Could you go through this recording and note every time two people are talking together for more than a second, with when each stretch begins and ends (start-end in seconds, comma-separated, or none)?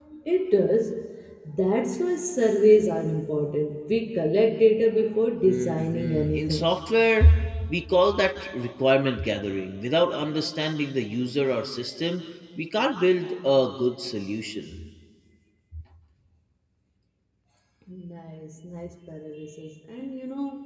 5.5-6.7